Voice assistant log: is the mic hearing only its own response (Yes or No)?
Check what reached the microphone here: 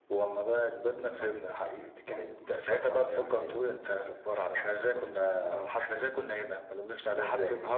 Yes